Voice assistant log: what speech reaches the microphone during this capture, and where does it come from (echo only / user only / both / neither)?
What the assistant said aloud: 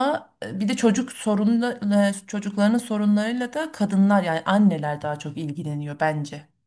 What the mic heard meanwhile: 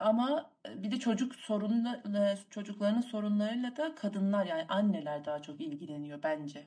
echo only